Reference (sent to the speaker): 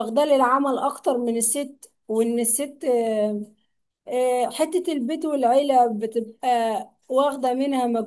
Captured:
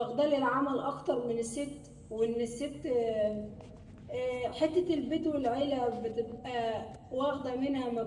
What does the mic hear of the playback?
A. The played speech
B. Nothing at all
A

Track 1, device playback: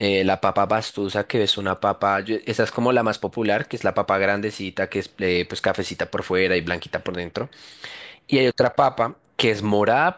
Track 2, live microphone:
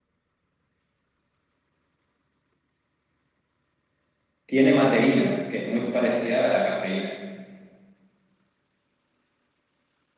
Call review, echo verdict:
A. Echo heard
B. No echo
B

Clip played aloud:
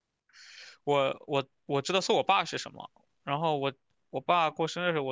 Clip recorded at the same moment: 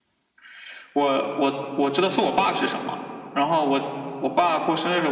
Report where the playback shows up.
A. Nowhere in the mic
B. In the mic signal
B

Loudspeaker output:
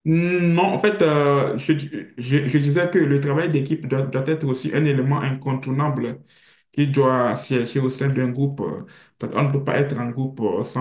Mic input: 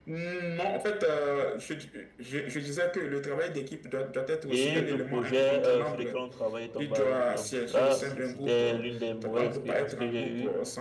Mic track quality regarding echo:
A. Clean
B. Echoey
B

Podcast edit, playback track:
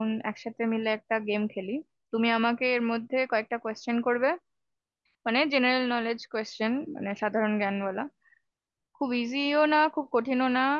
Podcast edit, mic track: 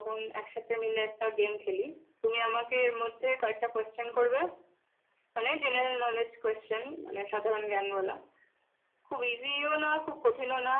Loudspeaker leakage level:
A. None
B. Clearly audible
B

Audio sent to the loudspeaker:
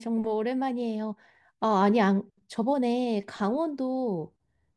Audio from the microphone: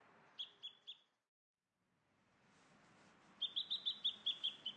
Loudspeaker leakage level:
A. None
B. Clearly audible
A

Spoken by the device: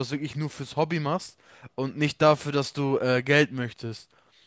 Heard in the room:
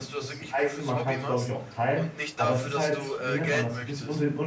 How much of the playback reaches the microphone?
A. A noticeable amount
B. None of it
A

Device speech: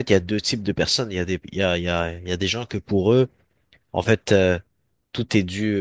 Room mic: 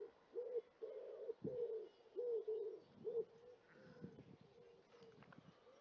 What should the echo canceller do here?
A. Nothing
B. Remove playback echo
A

